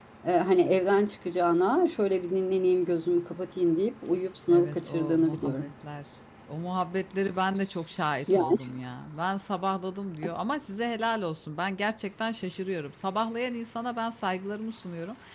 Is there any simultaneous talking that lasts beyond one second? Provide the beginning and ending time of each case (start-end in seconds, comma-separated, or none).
4.5-5.7